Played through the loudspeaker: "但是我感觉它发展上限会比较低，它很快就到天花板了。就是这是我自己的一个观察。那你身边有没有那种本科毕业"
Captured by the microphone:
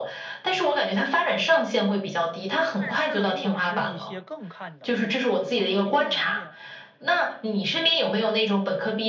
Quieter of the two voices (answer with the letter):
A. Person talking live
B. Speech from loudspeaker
A